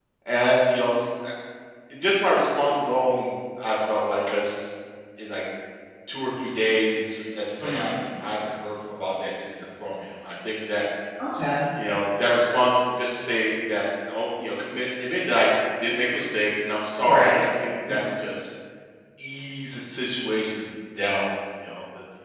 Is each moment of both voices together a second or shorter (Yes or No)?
Yes